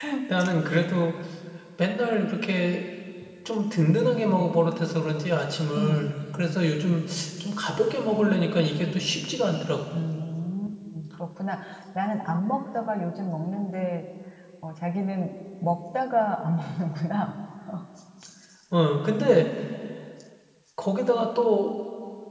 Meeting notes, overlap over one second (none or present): none